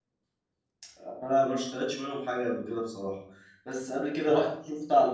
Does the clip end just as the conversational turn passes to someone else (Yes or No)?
No